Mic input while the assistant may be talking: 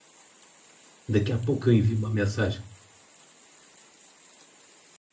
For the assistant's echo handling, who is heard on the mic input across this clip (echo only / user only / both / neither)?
user only